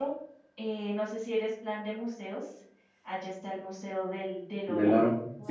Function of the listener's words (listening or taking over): taking over